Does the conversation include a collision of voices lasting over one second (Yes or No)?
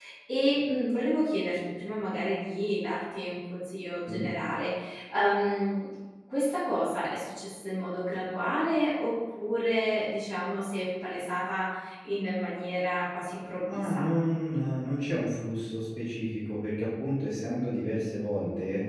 No